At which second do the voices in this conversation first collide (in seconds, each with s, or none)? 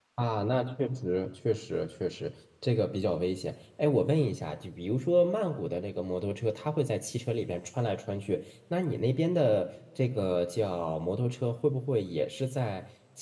none